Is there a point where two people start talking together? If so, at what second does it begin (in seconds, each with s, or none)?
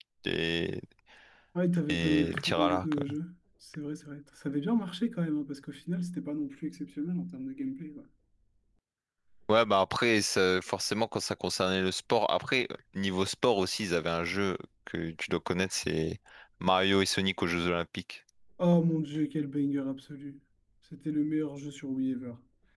1.9 s